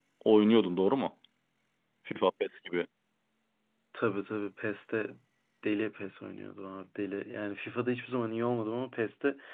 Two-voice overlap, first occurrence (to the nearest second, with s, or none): none